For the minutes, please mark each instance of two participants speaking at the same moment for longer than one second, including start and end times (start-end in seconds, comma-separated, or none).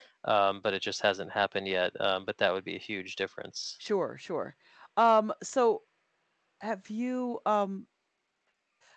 none